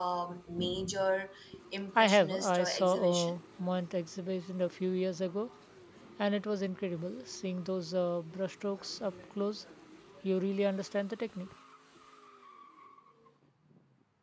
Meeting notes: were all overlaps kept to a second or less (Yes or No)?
No